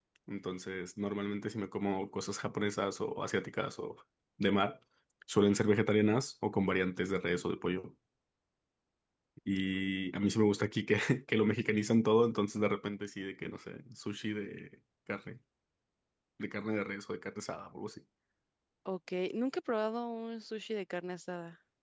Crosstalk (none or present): none